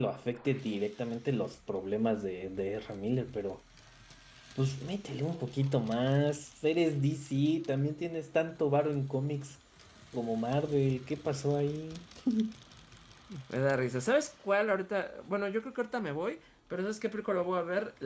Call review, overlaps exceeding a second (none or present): none